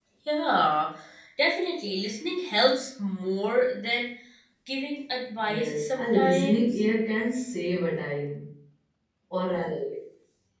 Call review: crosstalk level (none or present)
present